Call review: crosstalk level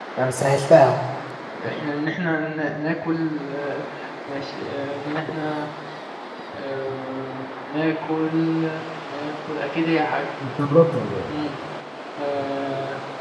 none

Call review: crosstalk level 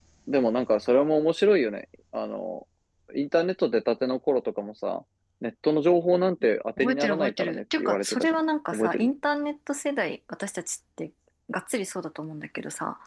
present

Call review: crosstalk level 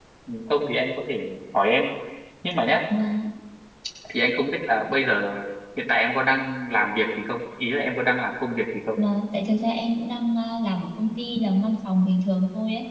none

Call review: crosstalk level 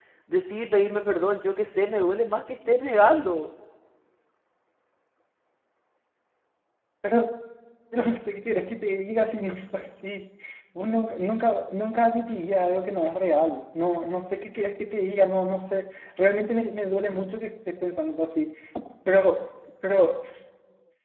none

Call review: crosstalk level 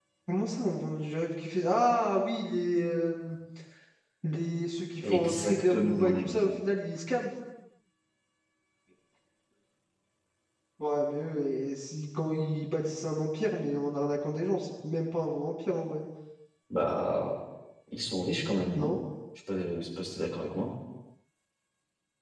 present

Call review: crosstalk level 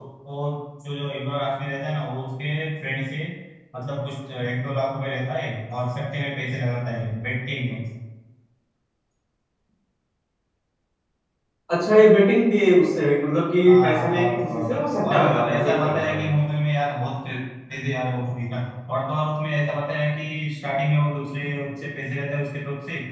present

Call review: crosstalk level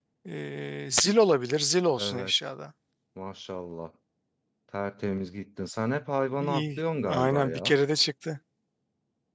present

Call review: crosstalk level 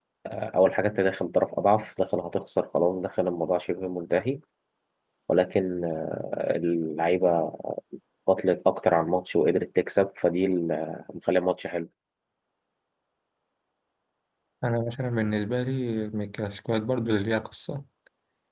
none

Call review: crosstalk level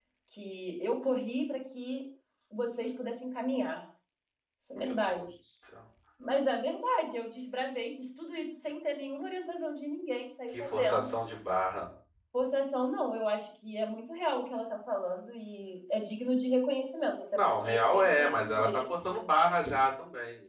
present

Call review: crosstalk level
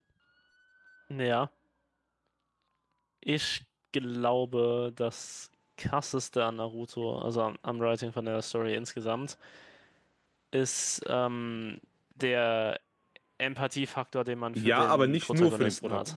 present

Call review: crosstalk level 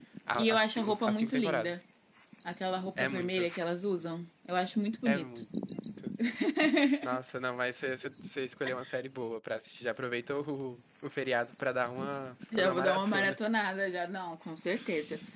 present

